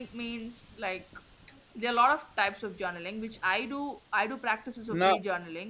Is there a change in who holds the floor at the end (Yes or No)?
No